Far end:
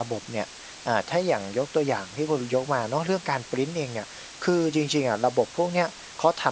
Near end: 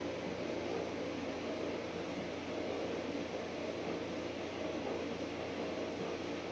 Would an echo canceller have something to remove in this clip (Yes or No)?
No